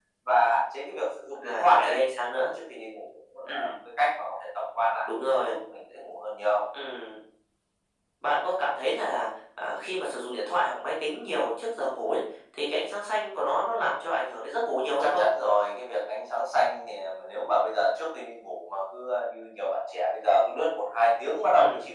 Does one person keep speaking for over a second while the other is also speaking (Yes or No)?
No